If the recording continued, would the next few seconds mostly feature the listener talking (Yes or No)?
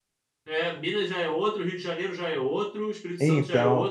No